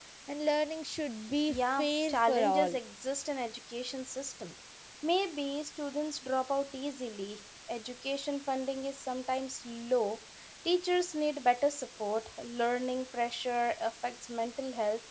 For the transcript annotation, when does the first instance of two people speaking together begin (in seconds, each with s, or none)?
1.5 s